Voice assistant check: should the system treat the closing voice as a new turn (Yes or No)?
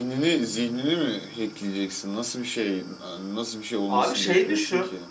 Yes